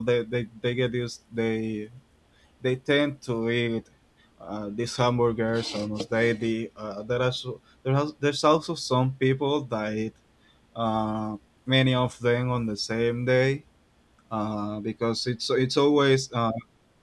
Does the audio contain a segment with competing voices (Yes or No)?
No